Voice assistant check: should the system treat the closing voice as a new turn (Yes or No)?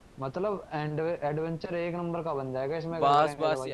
Yes